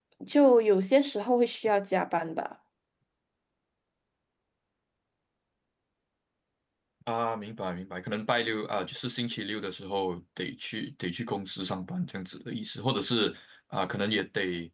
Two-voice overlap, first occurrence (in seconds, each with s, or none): none